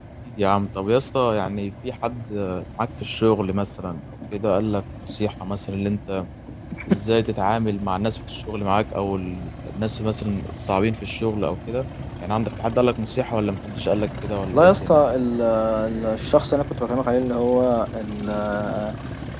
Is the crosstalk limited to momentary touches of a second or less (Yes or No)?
Yes